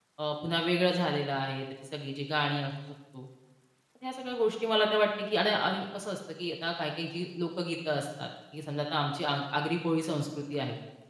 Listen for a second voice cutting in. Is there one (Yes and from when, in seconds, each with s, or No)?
No